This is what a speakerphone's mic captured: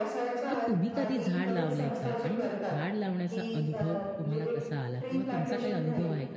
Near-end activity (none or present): present